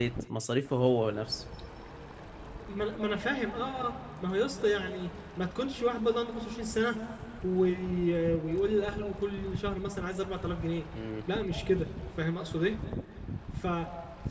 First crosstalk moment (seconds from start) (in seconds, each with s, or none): none